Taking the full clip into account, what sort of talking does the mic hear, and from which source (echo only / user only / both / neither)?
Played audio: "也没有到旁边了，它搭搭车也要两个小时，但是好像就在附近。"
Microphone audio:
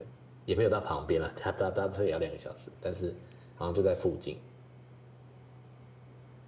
echo only